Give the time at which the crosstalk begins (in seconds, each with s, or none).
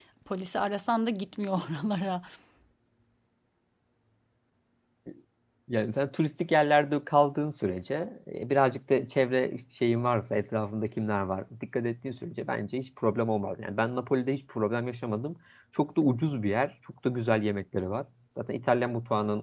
none